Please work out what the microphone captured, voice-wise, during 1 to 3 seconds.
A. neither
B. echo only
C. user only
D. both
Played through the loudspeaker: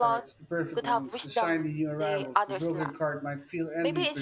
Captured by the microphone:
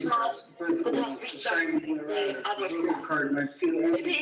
B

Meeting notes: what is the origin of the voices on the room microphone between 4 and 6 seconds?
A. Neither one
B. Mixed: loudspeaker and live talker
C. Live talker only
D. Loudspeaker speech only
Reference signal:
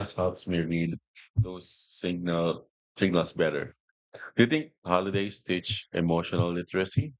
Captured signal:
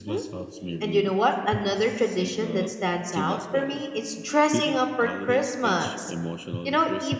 B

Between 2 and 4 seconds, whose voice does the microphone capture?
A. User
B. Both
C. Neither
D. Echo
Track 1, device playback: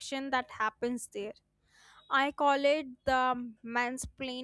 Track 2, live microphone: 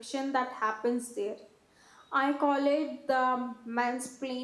D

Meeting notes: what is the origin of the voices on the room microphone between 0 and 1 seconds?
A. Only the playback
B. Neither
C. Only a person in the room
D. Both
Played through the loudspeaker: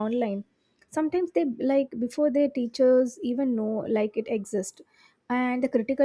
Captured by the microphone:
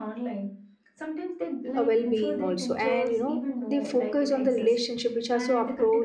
A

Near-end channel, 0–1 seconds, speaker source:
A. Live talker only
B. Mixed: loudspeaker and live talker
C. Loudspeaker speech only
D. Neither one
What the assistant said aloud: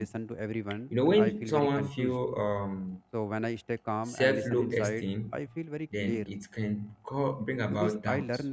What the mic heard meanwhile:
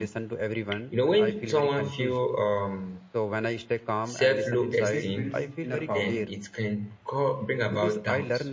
C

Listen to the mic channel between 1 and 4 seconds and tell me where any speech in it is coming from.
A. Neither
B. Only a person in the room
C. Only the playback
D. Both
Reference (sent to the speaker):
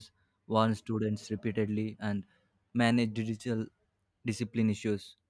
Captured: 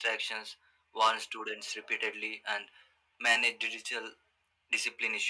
C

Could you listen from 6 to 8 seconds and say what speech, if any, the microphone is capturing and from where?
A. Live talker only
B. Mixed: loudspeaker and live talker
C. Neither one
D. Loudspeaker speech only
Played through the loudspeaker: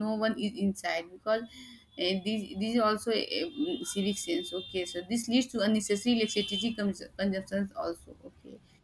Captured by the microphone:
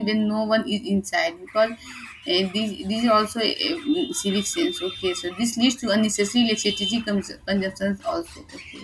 D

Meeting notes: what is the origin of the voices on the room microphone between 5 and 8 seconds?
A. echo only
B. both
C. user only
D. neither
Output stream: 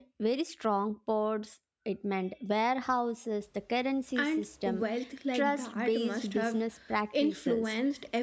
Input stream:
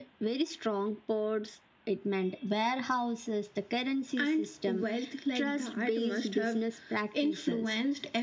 A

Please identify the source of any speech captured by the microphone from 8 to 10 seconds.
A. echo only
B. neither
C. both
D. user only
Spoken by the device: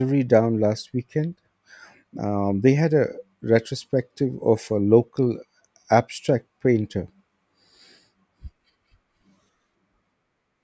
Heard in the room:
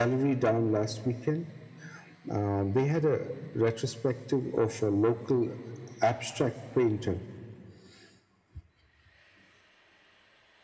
B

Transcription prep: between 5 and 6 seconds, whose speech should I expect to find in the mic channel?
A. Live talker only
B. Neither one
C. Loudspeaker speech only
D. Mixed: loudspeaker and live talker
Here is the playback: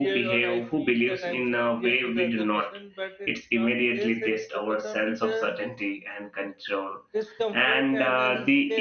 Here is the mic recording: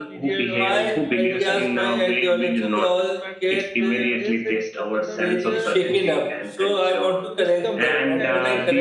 D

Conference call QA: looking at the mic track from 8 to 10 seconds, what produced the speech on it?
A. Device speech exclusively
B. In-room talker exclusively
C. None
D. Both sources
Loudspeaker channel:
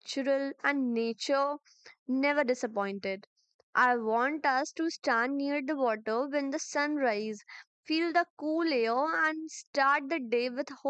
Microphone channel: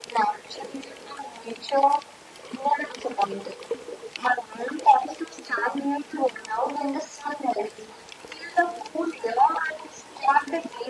A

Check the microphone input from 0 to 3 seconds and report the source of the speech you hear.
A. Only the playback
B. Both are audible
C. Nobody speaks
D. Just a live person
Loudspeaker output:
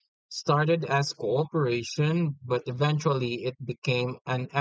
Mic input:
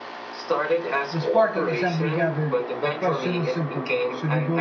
B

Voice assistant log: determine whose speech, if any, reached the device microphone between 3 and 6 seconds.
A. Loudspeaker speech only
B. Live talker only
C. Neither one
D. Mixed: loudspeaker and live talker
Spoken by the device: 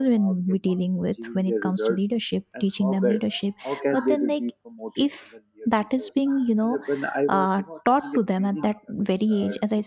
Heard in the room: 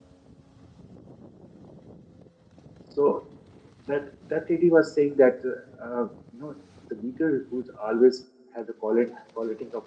B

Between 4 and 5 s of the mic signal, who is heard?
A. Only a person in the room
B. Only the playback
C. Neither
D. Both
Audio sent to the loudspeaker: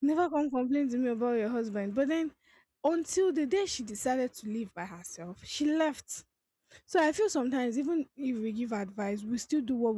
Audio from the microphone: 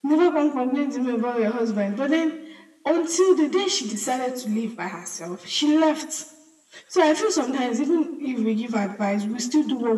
B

